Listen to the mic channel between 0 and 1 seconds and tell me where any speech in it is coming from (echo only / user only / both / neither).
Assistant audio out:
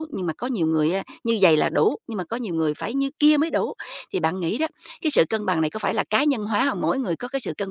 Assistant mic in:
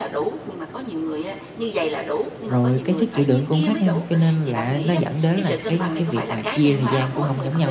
echo only